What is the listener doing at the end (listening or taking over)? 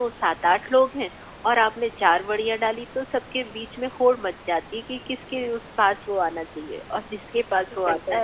listening